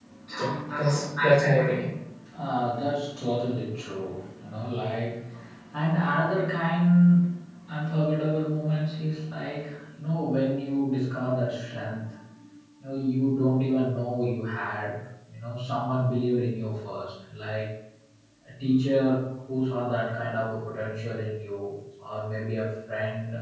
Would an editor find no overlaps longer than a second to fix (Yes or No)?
No